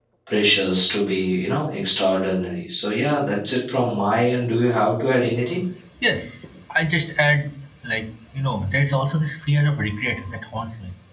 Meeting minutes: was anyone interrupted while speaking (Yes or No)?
No